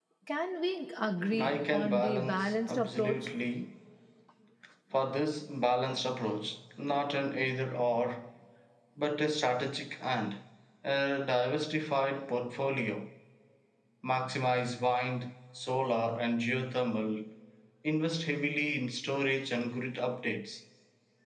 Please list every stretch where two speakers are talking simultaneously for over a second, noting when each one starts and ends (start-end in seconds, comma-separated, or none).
1.4-3.3